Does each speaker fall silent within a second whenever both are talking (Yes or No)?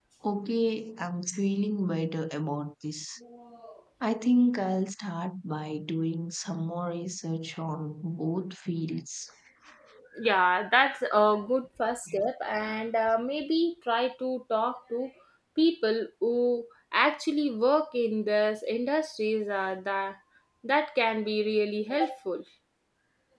Yes